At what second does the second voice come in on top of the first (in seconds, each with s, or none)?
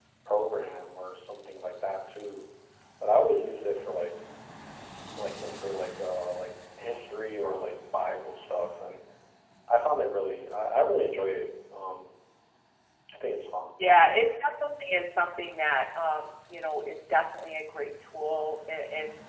none